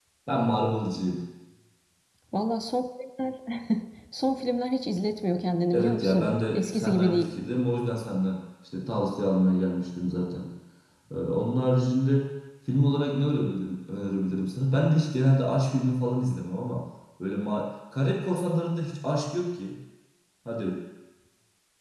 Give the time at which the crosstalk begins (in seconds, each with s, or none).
5.7 s